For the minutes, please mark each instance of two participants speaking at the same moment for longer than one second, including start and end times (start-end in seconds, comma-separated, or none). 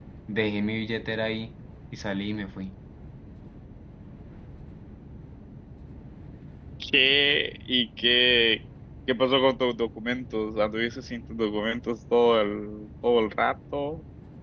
none